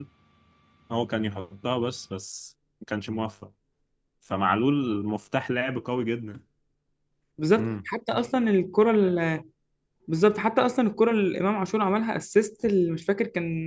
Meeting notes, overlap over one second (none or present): none